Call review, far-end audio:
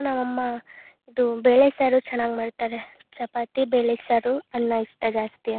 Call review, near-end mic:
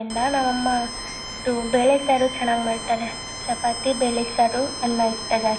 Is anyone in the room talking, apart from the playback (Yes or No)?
No